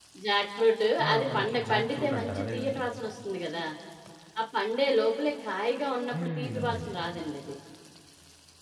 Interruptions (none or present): present